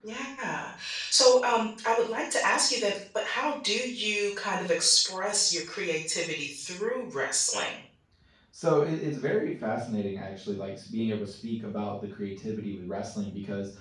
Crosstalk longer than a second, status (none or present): none